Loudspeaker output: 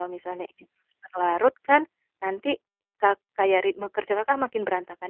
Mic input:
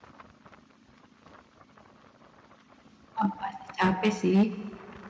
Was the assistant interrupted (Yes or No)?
Yes